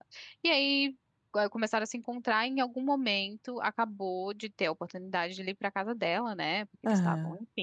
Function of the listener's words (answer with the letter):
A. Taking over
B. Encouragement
B